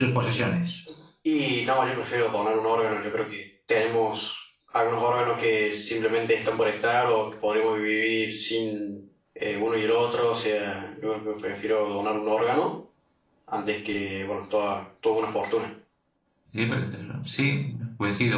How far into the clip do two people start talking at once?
none

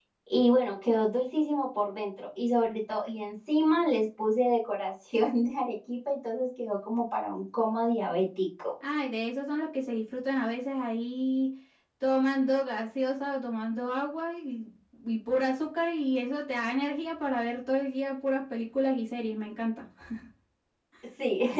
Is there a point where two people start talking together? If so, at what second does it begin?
none

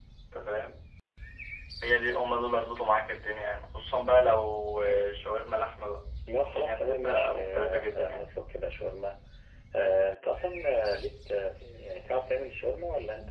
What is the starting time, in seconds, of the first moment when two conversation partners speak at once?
6.2 s

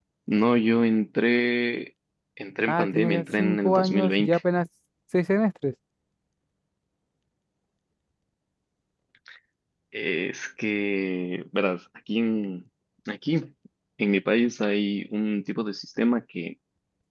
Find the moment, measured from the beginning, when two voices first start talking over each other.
2.7 s

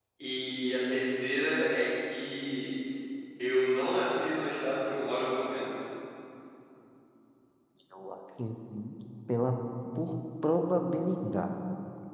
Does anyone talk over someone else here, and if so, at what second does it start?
none

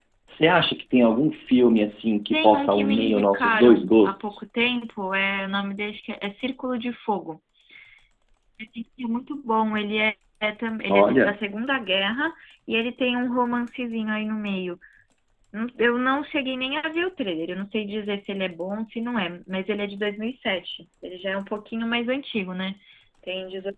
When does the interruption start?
2.3 s

